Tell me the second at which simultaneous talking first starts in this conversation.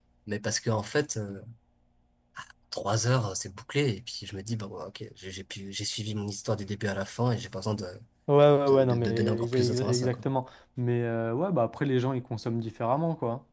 8.7 s

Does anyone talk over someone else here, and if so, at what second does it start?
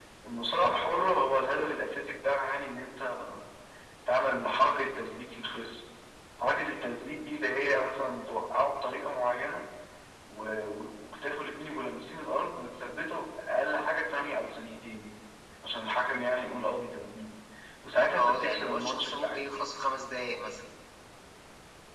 18.1 s

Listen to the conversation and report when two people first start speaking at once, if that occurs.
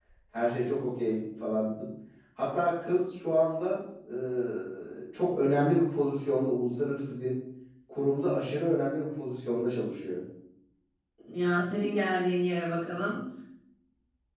none

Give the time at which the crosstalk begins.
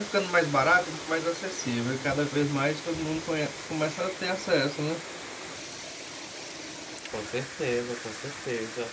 none

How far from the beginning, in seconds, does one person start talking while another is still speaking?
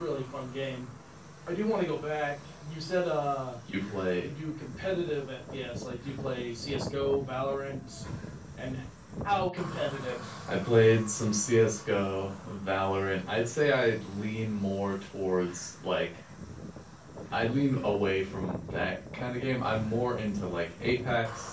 none

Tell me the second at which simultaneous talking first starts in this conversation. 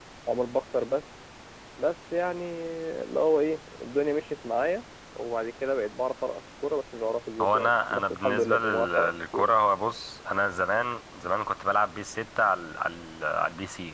7.4 s

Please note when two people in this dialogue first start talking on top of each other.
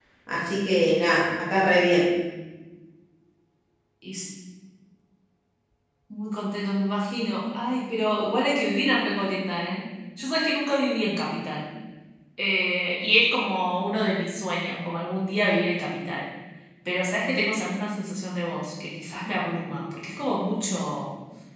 none

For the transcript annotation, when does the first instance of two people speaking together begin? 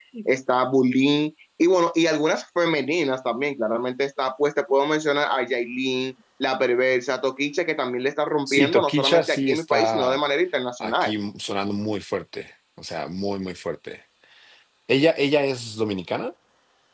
8.5 s

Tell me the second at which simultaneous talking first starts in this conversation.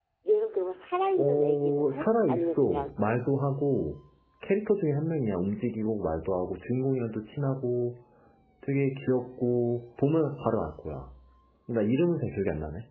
1.2 s

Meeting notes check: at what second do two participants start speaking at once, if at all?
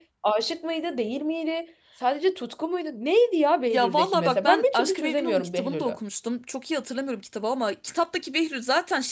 3.7 s

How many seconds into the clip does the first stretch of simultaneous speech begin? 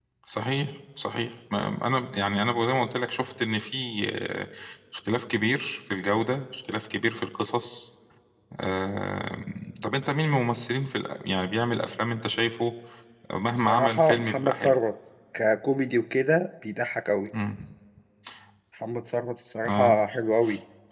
13.5 s

